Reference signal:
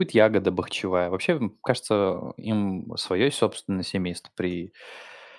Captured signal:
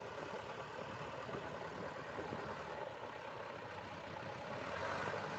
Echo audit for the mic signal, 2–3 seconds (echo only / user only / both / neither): neither